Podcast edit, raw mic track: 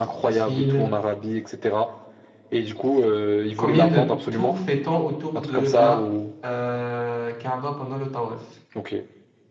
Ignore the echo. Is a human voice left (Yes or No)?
Yes